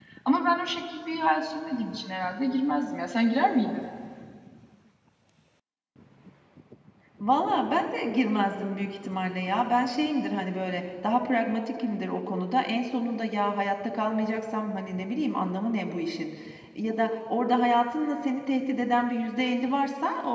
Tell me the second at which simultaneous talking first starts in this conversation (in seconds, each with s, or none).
none